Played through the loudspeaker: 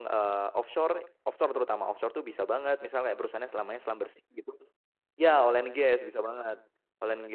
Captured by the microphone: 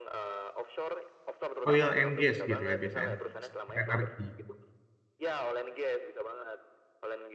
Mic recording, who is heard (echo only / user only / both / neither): both